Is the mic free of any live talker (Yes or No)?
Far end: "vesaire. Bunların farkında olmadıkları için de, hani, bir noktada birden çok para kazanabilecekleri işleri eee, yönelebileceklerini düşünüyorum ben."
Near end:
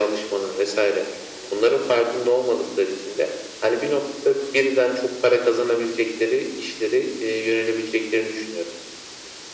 Yes